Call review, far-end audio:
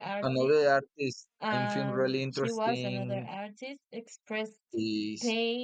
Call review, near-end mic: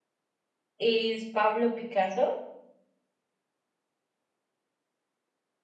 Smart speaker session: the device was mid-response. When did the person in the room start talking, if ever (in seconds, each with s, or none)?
0.8 s